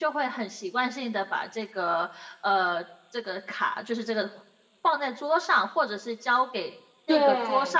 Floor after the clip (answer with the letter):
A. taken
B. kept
B